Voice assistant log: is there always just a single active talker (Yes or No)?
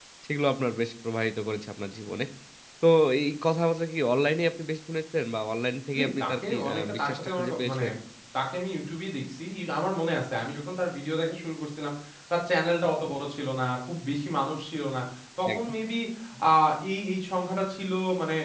No